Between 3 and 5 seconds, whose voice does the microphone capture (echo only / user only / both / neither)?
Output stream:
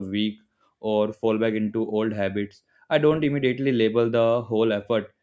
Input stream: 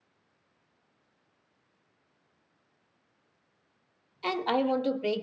user only